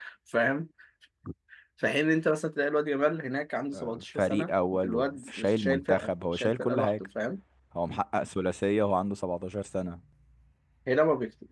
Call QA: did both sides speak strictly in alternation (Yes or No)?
No